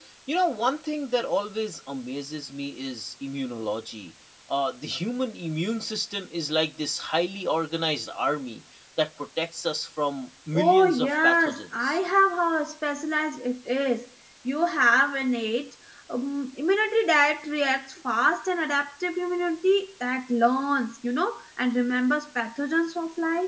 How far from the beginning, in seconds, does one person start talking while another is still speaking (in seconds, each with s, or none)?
10.5 s